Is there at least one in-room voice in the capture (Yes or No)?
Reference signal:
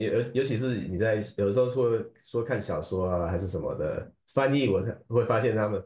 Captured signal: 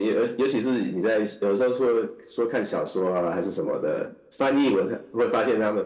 No